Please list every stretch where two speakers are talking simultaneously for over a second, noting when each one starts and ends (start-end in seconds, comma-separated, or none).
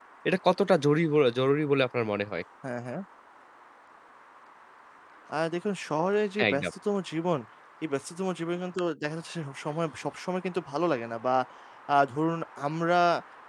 none